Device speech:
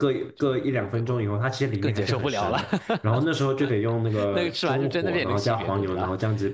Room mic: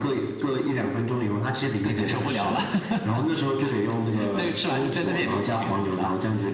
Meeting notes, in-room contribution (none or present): none